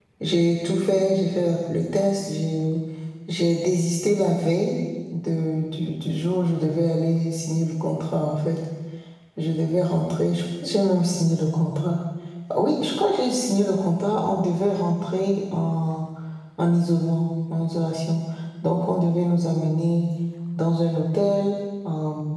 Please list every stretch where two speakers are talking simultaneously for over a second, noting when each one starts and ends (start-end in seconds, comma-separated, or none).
none